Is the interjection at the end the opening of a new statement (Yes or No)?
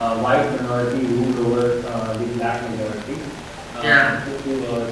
No